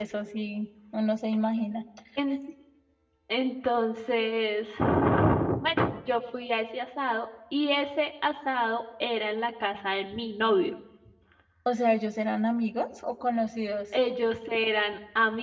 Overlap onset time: none

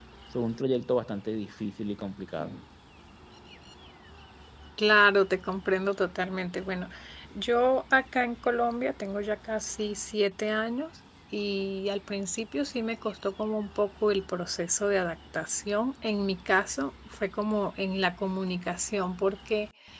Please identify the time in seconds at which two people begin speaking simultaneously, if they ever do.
none

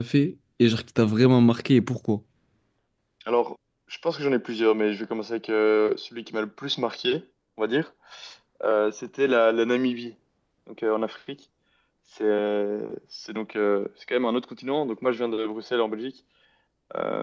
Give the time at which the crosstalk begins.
none

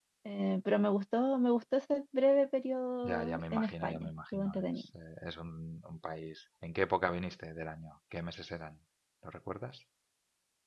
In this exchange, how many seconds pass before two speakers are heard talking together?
3.0 s

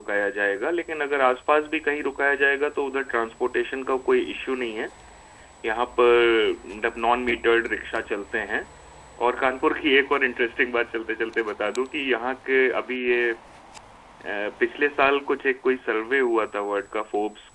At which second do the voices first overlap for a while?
none

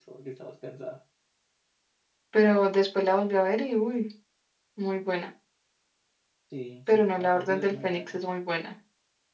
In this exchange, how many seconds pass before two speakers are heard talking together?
6.9 s

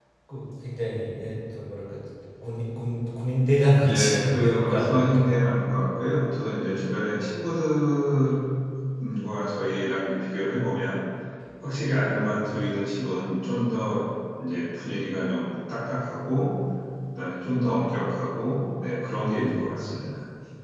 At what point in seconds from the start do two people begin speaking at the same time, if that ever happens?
3.9 s

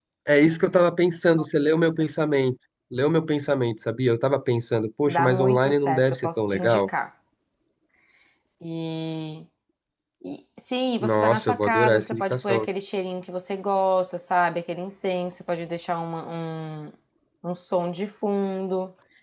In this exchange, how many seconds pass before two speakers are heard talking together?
5.1 s

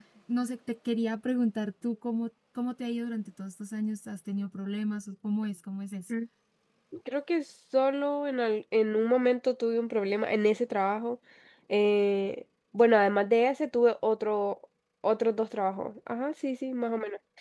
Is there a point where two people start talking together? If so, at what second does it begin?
none

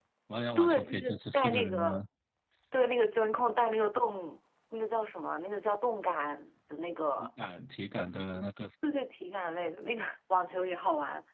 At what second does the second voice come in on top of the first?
0.6 s

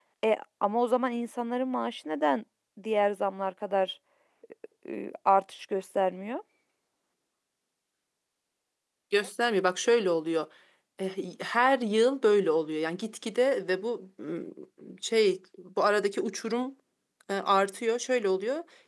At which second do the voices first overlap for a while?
none

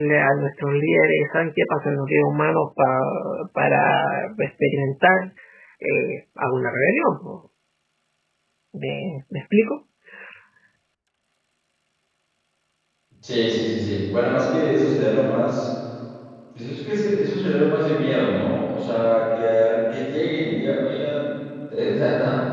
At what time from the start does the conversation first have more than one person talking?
none

